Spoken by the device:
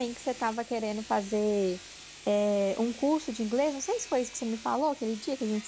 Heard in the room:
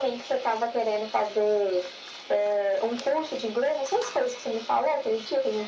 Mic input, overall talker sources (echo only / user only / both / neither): echo only